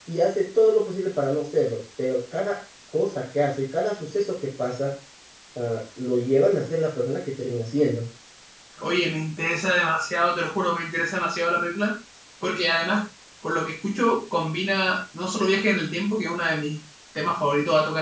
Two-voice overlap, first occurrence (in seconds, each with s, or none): none